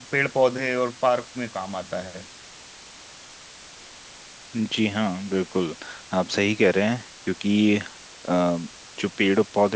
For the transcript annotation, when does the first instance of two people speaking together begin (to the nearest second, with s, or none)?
none